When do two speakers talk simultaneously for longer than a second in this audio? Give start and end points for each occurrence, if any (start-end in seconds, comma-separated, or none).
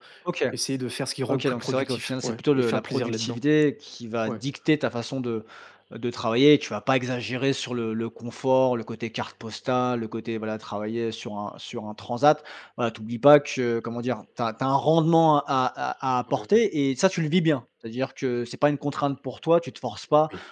1.3-3.4